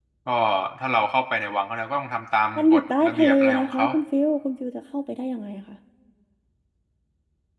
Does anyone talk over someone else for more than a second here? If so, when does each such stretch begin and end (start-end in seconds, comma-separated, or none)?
2.6-3.9